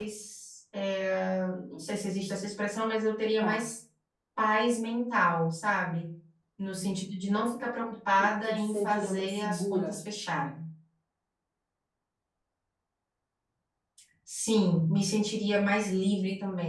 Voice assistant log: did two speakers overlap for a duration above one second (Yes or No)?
Yes